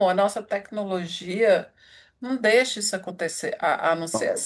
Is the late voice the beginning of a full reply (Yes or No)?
No